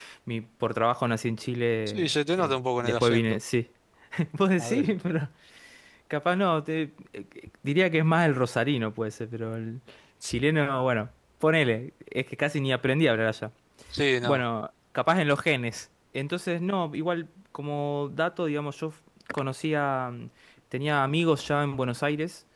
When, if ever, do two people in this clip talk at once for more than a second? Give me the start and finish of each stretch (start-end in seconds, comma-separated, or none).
1.9-3.4